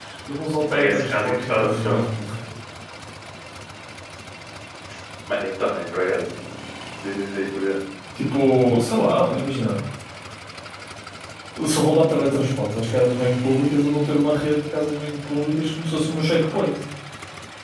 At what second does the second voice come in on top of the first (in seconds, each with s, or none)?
0.6 s